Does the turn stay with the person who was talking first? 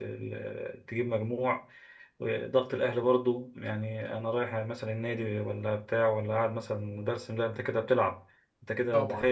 No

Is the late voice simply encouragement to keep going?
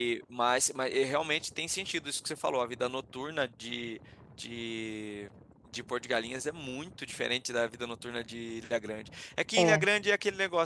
Yes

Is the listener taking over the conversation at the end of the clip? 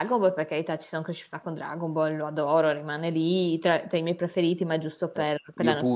Yes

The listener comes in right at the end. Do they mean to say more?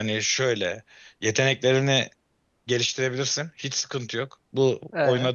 No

